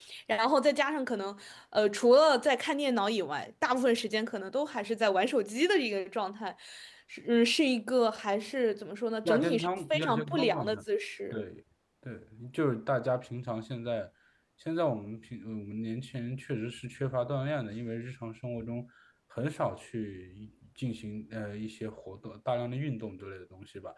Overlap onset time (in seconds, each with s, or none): 9.2 s